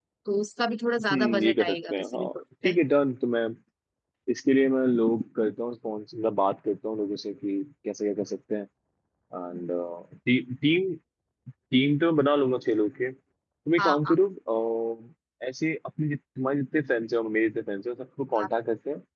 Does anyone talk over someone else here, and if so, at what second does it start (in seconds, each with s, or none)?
1.1 s